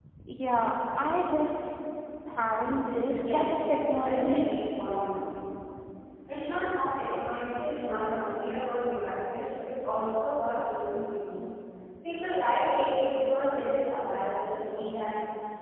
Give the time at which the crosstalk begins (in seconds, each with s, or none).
3.2 s